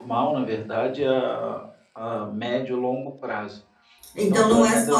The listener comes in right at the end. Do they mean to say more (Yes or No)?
Yes